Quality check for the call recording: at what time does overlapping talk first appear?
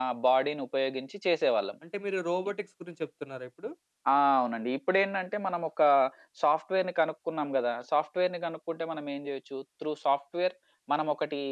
none

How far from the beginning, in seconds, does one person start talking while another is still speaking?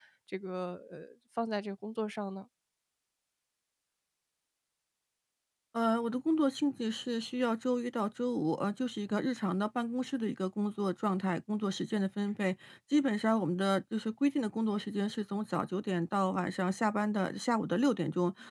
none

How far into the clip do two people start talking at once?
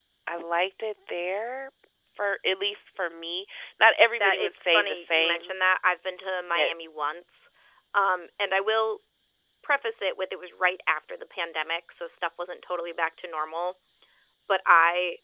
4.2 s

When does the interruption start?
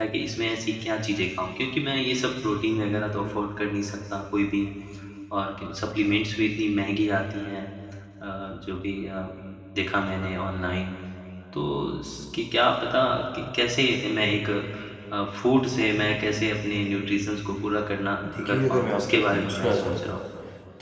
18.4 s

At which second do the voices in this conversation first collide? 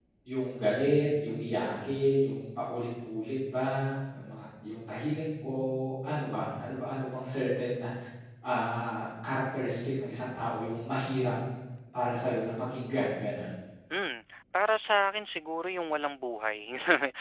none

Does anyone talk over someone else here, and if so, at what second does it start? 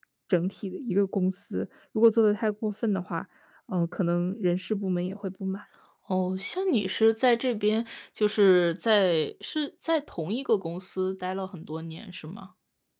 none

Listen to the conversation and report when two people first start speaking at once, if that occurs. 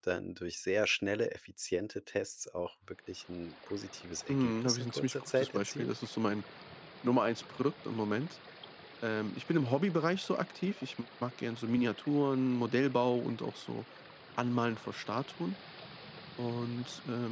4.3 s

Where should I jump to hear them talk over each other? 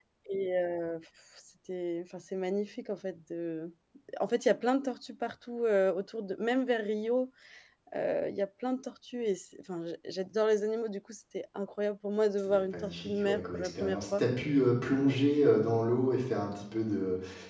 12.5 s

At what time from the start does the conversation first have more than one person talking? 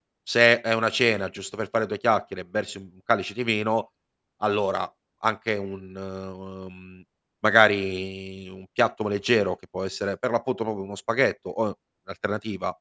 none

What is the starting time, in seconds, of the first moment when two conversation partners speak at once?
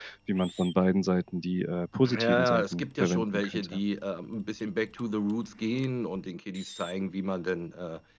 2.0 s

